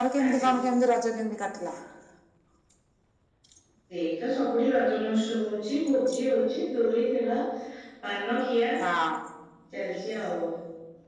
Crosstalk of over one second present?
No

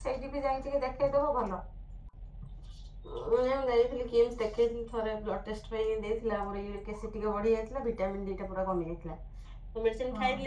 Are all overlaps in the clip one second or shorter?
Yes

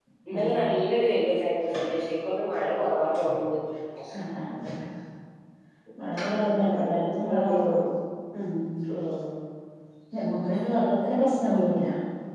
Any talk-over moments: Yes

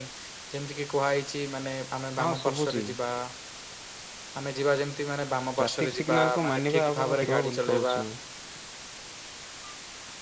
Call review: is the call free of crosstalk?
No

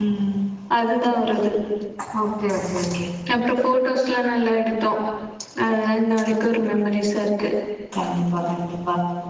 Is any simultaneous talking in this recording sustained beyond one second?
No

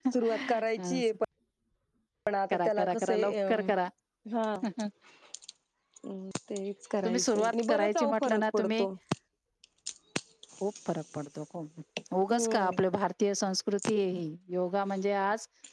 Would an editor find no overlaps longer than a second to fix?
No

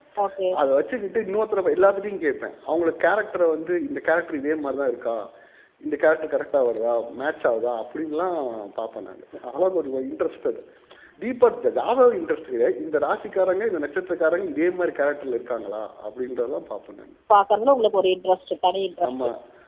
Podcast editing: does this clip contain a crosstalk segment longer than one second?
No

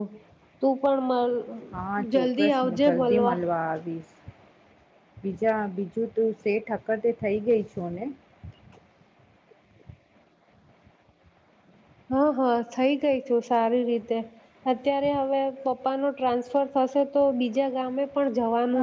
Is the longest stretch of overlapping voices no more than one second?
No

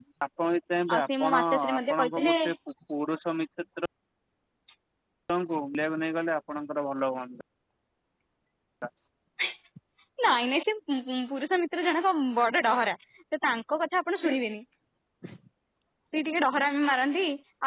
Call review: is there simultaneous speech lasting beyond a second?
Yes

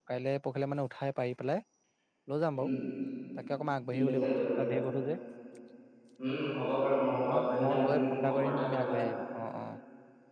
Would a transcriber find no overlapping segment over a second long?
No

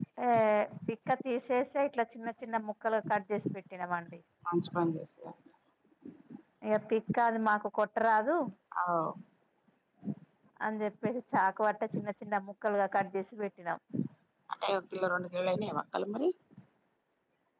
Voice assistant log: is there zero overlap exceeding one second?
Yes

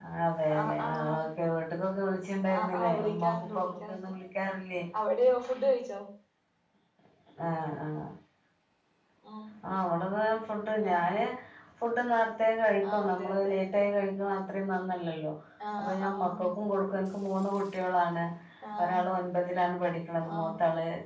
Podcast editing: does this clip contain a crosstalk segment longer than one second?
Yes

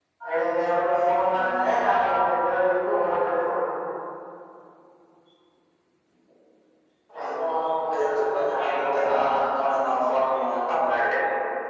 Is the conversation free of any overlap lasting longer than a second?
No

